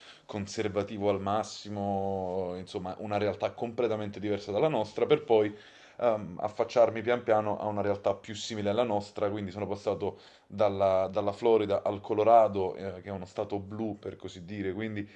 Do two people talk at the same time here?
No

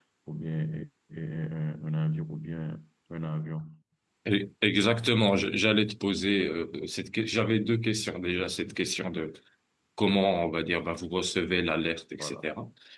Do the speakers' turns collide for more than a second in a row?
No

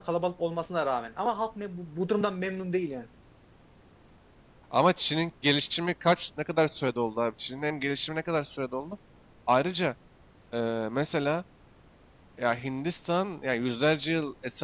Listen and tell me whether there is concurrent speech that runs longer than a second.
No

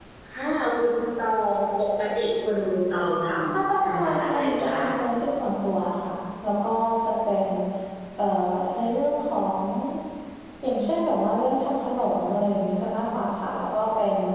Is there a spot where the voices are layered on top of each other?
Yes, from 3.5 s

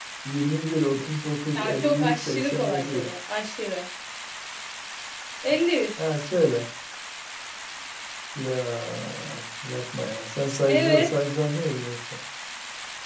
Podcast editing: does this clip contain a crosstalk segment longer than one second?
Yes, from 1.6 s

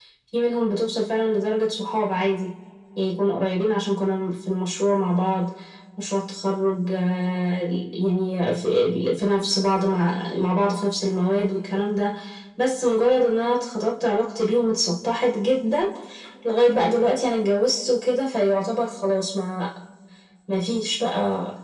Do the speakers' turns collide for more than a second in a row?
No

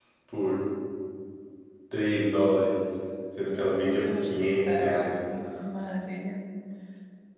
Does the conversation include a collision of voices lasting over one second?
Yes, from 3.5 s

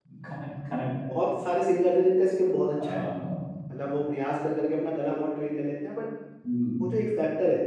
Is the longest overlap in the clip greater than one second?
No

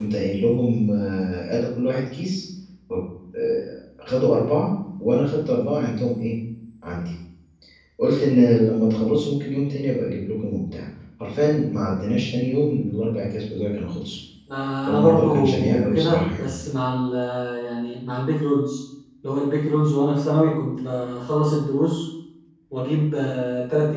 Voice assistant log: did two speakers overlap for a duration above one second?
Yes, from 14.9 s

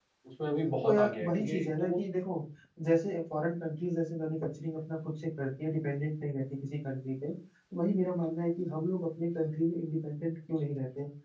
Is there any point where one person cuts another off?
Yes, from 0.8 s

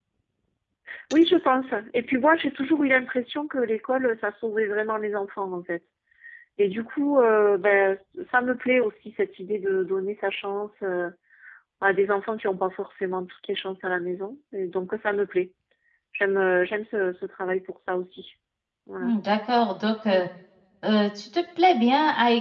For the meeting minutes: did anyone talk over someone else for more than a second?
No

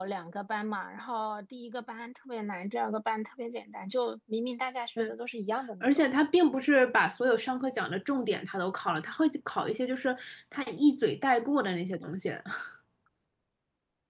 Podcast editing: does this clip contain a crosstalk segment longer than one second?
No

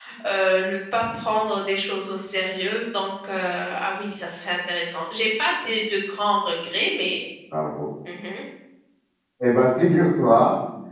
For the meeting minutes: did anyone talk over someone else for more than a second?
No

